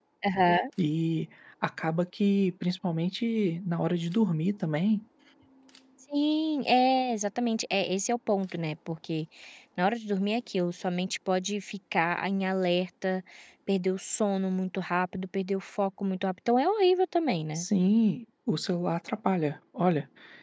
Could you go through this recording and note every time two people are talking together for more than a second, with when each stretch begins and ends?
none

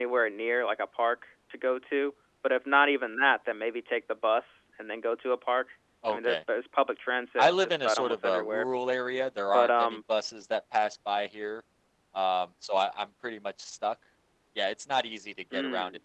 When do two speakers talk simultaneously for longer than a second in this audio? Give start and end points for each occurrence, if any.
7.4-8.7

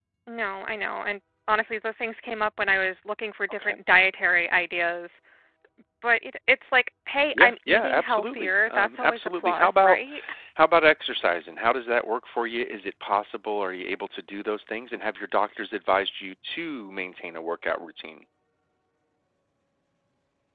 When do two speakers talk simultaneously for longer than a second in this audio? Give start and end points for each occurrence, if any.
7.3-10.0

